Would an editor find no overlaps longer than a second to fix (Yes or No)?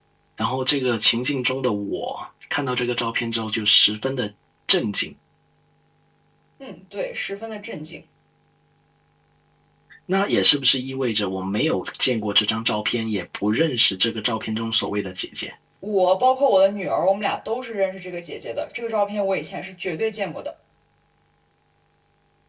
Yes